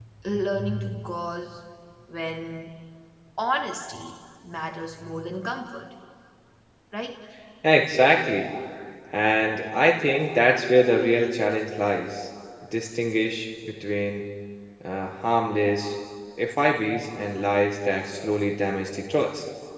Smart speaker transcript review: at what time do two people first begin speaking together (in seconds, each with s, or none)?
none